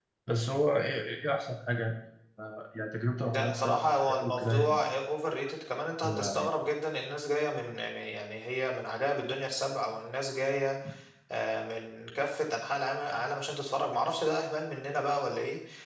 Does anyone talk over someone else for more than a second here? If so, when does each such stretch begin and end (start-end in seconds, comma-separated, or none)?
3.2-4.8